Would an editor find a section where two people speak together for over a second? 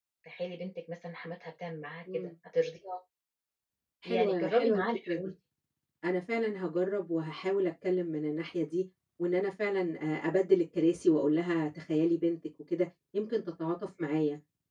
Yes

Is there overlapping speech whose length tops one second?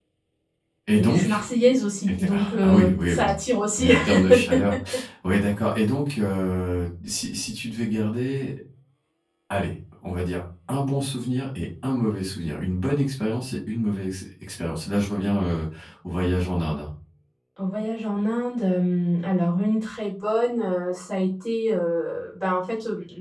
Yes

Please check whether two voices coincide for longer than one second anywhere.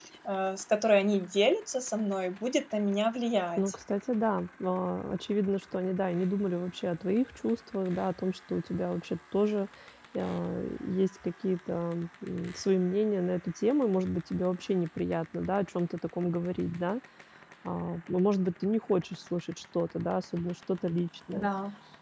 No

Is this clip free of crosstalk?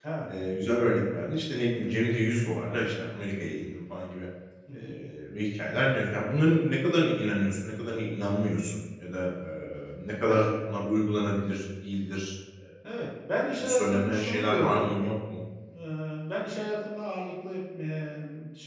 No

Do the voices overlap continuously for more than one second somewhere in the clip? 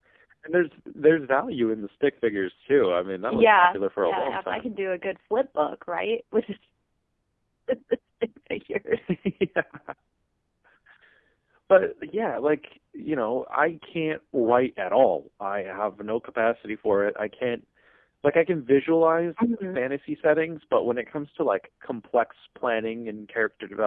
Yes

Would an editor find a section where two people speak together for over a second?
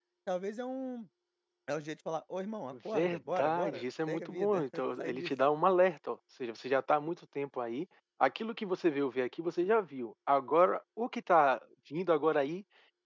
Yes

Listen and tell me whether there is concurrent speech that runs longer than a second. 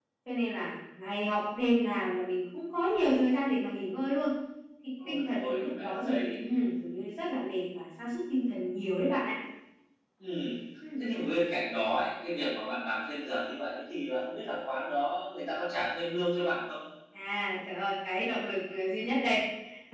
Yes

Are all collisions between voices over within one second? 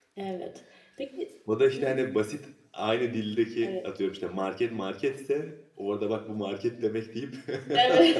Yes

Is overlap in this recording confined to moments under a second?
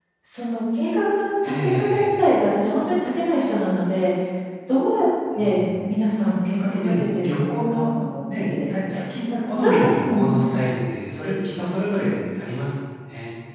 No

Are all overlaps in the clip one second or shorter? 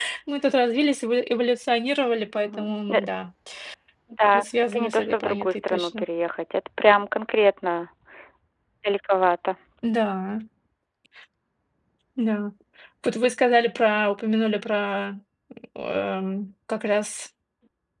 No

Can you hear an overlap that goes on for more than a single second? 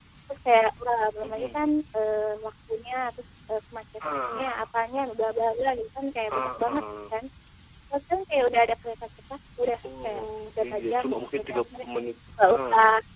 Yes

